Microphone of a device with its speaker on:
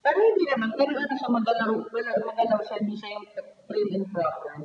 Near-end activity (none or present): none